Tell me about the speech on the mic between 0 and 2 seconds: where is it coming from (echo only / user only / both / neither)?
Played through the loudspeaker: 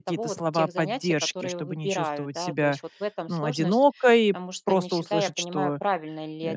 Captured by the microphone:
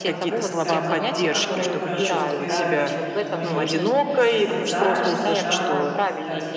both